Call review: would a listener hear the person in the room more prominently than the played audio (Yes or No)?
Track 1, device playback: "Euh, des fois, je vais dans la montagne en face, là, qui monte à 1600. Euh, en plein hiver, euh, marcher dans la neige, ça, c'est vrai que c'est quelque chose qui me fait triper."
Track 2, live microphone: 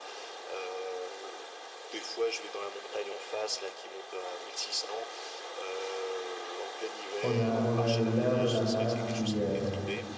Yes